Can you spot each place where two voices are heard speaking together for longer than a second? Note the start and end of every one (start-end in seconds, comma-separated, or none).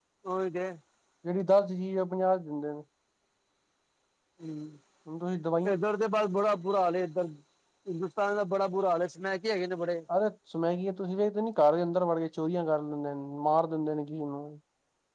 none